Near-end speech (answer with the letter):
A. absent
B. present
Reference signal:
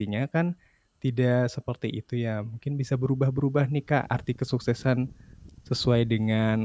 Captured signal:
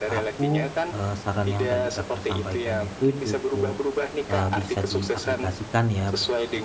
B